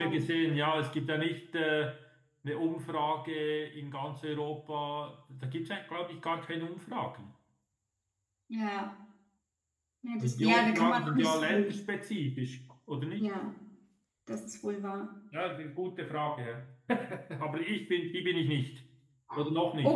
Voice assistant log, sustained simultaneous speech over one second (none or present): present